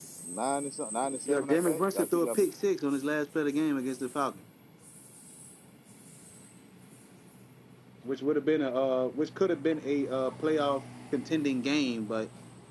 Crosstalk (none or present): present